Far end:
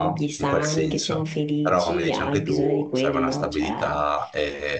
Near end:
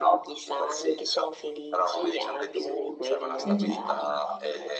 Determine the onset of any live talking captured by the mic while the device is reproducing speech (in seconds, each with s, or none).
3.4 s